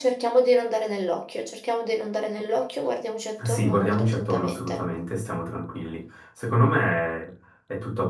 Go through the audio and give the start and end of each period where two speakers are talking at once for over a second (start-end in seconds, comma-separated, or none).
3.5-4.8